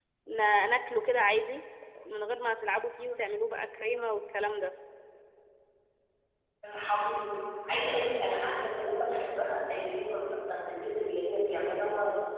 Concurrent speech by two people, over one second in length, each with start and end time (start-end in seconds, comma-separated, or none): none